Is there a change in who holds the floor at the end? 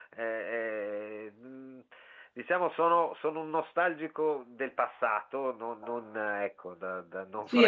Yes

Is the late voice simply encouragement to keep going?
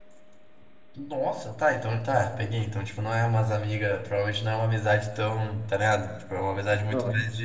Yes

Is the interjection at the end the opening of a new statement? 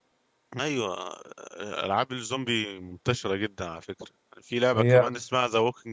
No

